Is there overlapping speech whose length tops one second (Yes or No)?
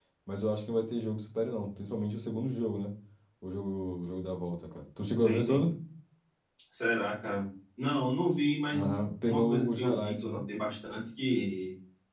Yes